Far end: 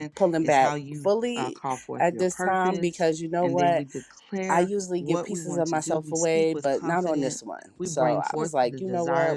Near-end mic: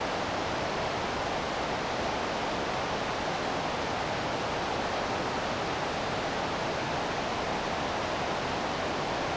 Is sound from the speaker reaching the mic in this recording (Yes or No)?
No